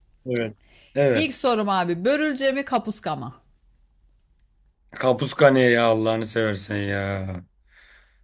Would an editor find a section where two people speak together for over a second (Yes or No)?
No